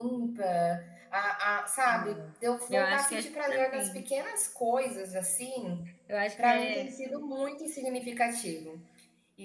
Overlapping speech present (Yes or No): Yes